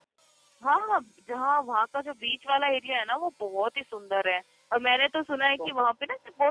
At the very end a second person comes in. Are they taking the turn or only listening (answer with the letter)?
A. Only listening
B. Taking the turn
A